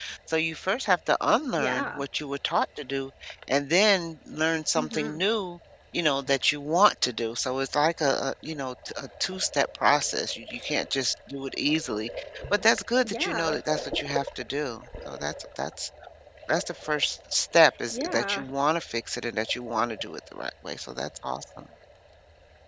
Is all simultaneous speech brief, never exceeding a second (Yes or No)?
Yes